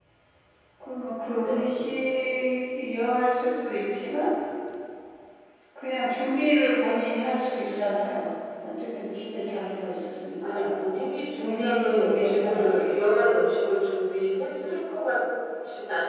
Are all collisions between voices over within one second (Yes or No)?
No